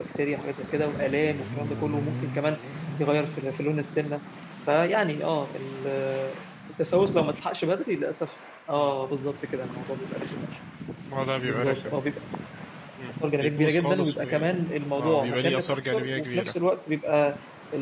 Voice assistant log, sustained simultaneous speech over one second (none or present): present